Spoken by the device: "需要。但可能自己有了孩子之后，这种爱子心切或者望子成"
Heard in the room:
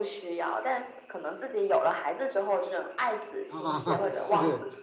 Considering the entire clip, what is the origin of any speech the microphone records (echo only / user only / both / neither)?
both